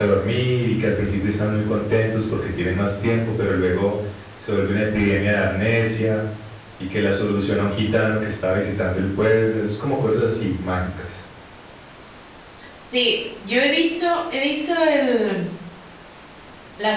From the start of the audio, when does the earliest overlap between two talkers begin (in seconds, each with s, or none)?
none